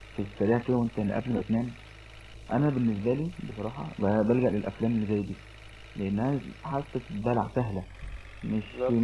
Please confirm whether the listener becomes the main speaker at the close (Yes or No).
No